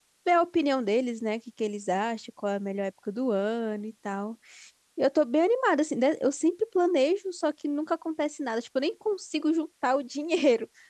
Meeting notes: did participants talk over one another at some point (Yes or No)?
No